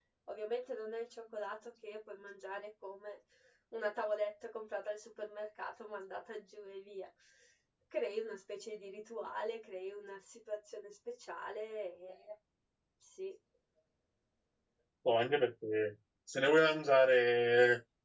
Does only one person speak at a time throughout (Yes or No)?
Yes